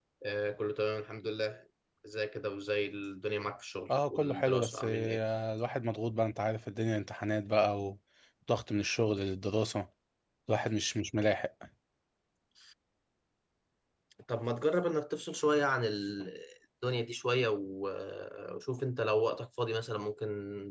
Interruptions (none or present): present